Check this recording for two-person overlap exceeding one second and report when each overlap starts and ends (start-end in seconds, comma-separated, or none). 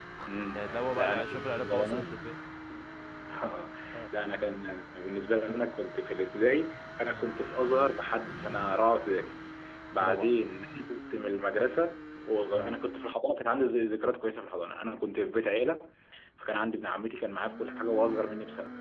0.5-2.1